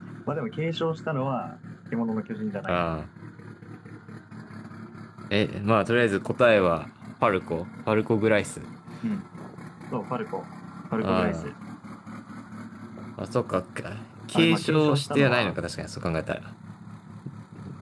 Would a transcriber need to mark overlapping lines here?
Yes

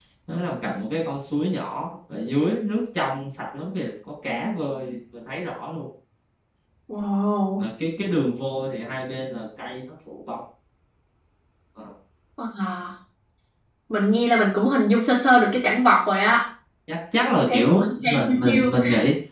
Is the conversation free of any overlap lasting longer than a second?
No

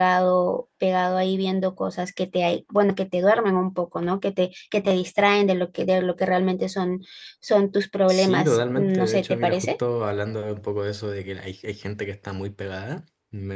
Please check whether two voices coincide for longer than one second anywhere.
Yes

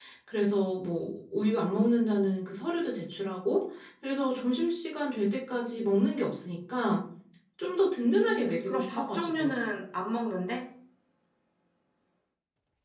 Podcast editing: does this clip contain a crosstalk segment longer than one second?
Yes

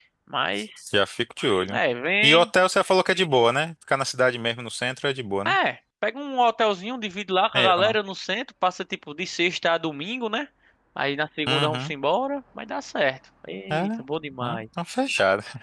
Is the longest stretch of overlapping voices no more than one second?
Yes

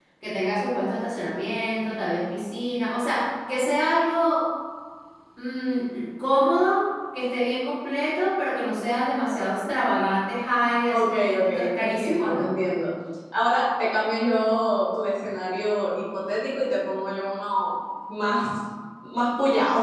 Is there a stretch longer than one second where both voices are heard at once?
Yes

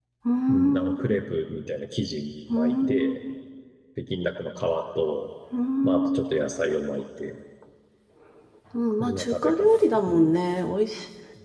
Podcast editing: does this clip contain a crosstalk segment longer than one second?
Yes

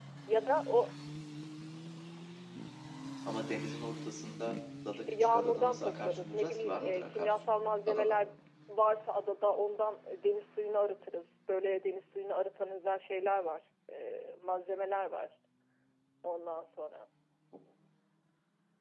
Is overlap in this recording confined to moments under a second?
No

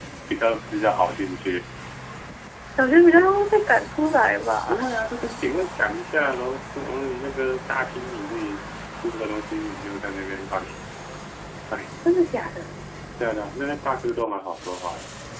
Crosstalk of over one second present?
No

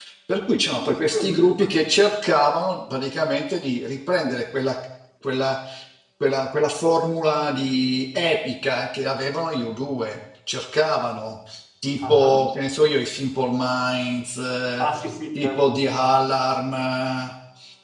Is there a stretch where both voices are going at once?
Yes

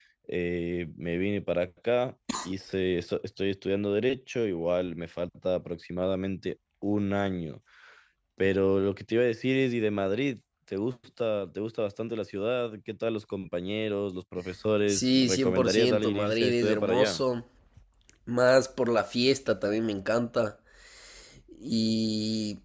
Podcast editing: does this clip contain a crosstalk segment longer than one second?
Yes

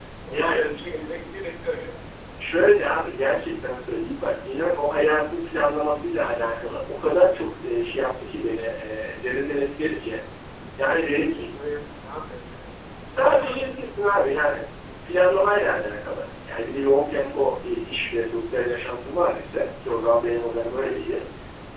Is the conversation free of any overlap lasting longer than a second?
No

